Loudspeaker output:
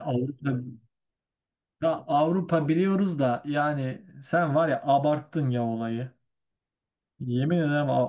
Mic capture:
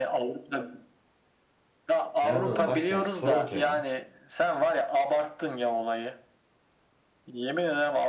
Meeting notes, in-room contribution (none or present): present